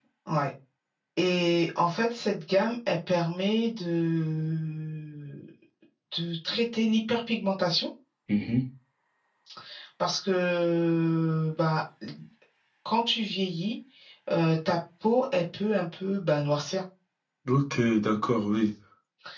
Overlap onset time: none

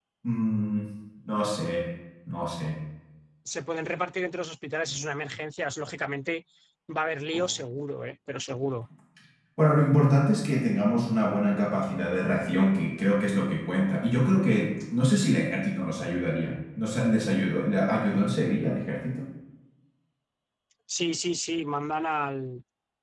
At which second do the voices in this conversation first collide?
none

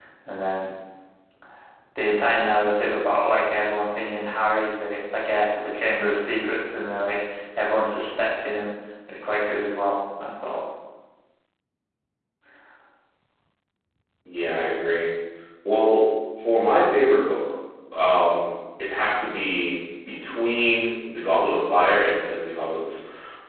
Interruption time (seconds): none

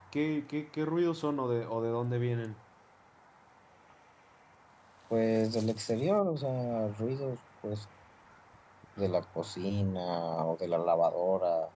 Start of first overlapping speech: none

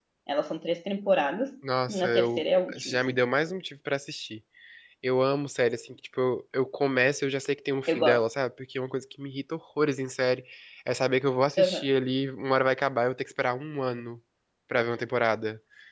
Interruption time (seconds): 1.9 s

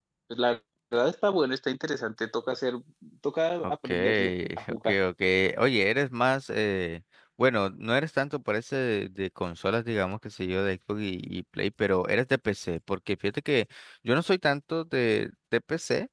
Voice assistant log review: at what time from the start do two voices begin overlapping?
3.6 s

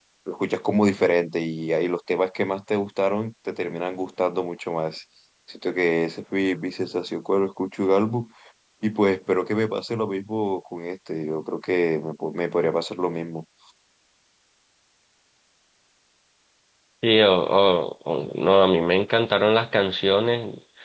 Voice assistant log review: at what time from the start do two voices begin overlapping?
none

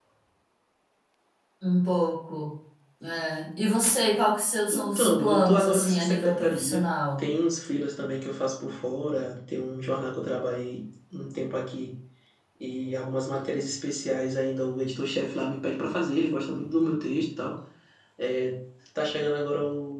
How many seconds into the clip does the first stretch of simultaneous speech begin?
4.7 s

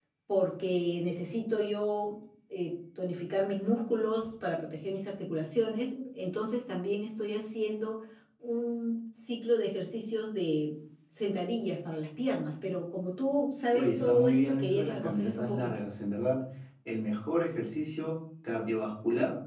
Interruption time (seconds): 13.7 s

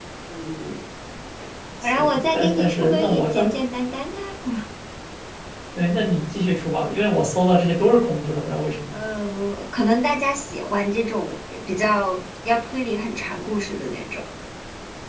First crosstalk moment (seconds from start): 2.0 s

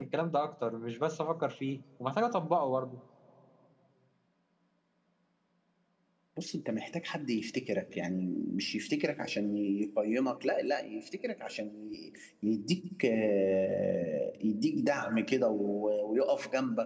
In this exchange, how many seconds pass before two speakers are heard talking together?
none

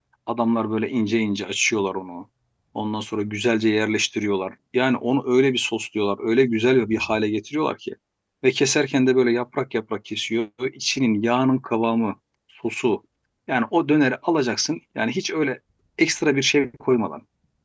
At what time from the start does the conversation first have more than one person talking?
none

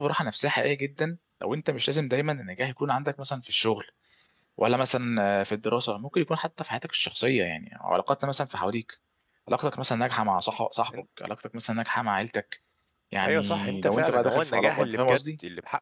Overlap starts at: 13.2 s

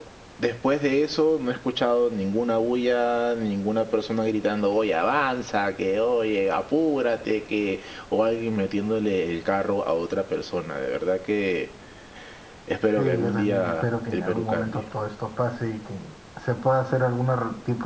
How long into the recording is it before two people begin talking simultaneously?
13.0 s

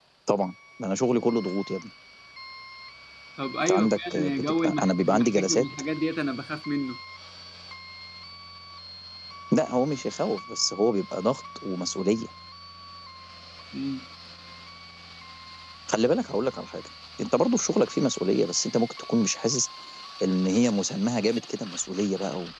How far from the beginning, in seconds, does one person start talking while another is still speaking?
3.6 s

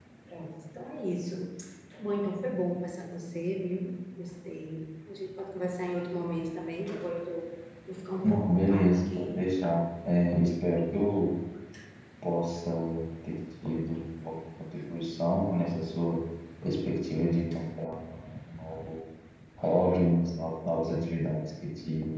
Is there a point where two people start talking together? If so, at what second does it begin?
8.2 s

